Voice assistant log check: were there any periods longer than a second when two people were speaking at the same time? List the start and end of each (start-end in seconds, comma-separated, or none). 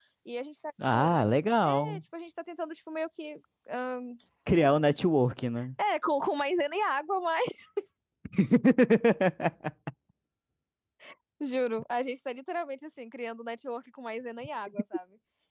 none